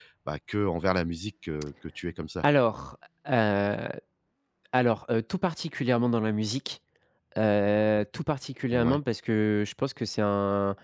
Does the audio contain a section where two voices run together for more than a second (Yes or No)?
No